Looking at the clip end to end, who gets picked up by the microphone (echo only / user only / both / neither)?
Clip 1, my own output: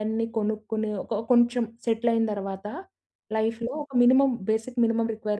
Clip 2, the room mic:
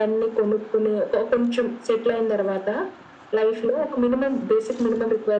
echo only